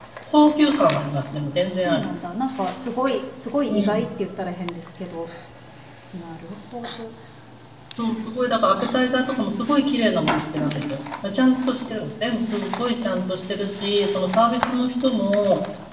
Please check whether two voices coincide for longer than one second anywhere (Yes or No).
No